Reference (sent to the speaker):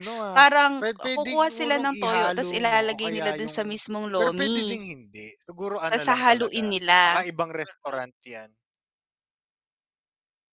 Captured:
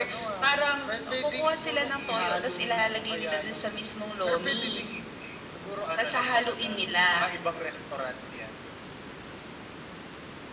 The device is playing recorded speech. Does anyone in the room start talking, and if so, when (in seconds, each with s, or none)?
none